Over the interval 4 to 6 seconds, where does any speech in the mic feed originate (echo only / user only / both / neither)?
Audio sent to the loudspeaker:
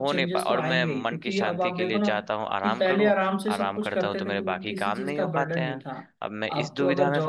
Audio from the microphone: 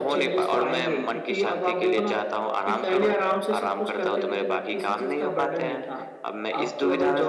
echo only